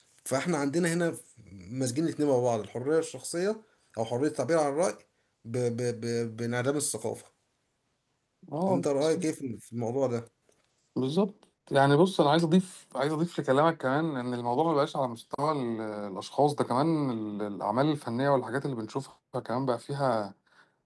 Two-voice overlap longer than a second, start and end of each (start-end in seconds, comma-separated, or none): none